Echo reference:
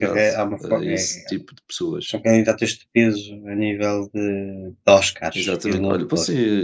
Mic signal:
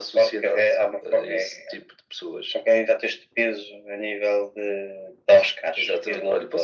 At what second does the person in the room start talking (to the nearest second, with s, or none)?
none